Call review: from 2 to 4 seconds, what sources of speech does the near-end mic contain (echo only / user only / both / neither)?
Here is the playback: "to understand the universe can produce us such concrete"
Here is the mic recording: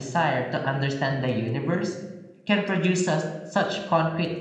echo only